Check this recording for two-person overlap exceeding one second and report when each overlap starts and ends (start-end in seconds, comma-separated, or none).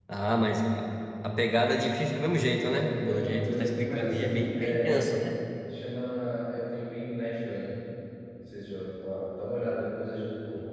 2.6-5.0